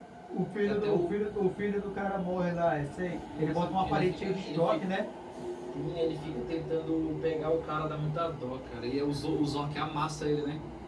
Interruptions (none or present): present